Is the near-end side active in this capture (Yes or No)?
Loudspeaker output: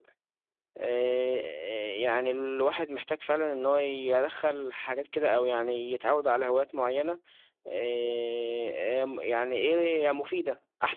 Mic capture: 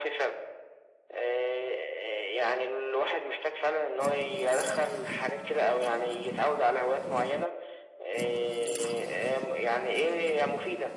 No